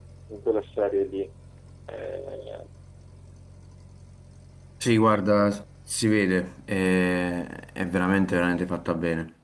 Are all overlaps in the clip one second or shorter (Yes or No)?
Yes